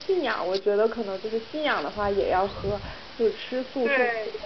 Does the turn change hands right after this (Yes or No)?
No